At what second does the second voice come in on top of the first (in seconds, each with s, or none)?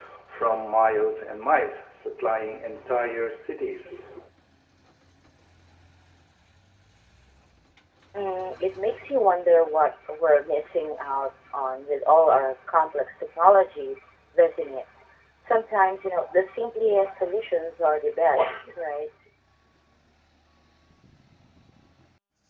none